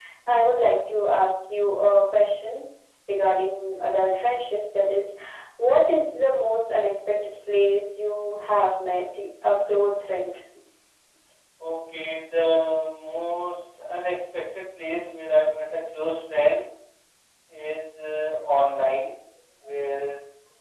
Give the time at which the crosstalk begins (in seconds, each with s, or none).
none